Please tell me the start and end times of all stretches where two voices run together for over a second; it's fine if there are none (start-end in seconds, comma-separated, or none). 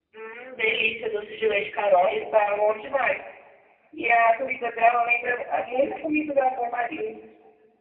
none